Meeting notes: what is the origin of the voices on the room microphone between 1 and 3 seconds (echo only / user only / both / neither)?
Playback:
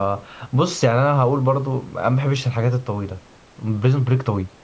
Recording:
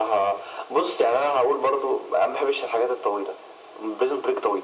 echo only